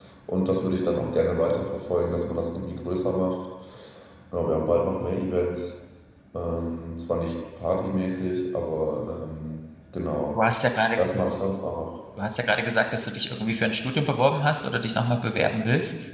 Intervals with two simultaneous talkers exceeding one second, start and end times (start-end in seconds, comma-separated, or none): none